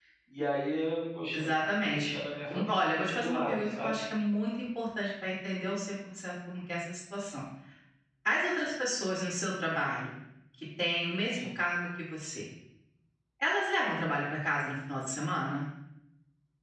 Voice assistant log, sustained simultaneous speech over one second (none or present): present